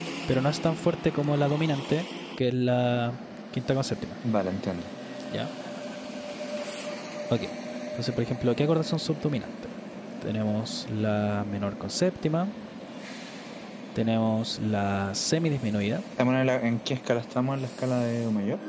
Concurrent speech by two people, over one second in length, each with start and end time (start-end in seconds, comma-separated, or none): none